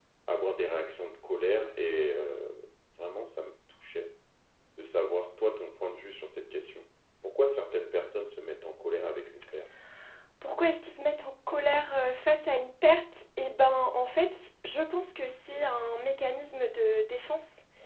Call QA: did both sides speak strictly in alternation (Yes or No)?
Yes